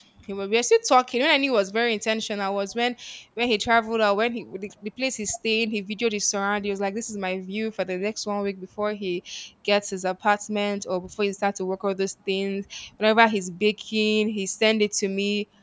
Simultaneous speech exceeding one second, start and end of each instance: none

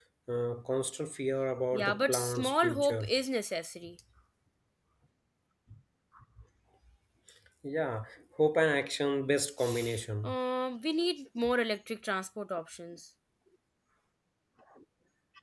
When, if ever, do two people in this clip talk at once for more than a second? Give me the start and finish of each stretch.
1.7-3.1

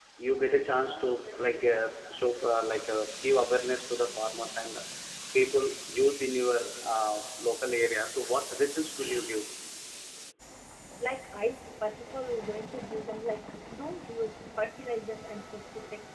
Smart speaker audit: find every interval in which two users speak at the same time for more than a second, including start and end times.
none

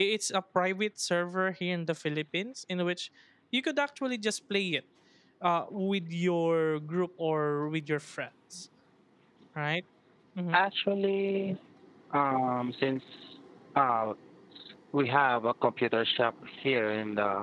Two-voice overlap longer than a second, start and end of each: none

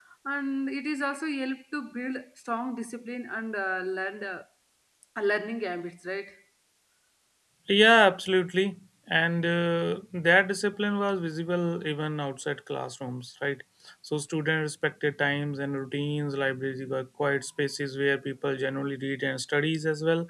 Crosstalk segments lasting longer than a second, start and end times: none

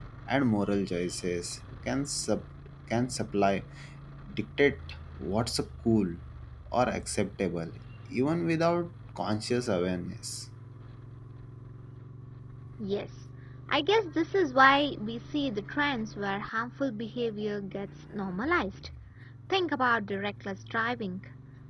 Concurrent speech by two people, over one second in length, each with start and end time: none

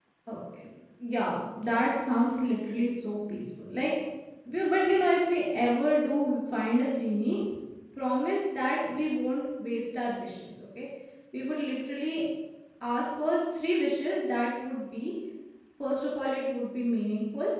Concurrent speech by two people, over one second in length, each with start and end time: none

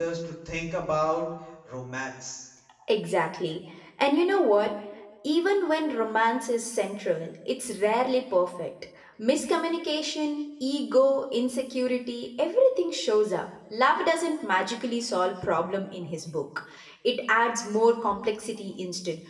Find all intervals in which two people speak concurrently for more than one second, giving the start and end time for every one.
none

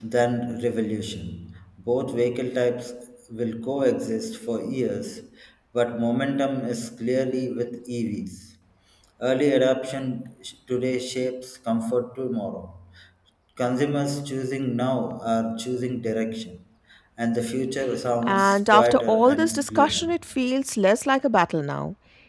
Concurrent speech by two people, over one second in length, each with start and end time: 18.2-20.1

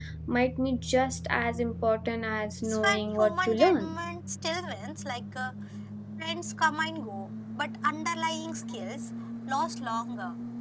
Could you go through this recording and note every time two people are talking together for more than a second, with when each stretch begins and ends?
2.6-4.0

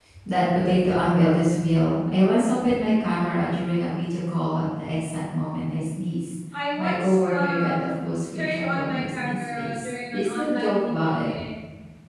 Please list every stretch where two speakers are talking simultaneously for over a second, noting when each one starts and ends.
6.8-11.3

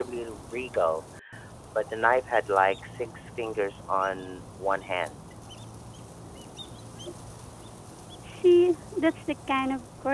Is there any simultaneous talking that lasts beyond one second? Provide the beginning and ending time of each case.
none

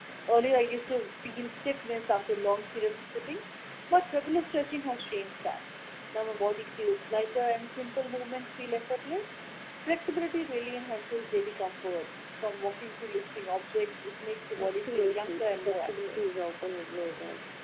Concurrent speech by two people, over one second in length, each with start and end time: 14.6-16.2

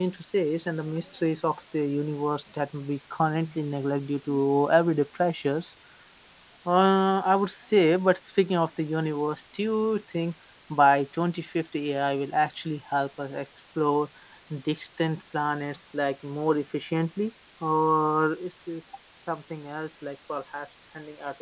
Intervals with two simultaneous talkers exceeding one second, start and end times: none

